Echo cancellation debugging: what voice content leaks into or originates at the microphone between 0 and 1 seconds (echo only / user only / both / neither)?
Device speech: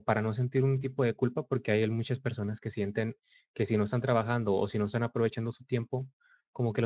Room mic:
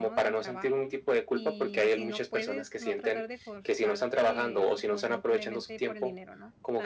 both